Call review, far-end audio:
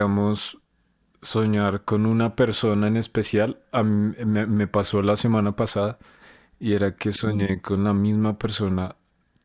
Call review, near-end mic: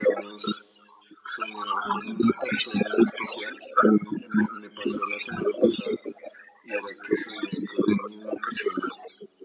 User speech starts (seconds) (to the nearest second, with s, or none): 2 s